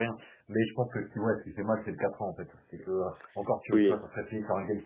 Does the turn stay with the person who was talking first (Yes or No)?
Yes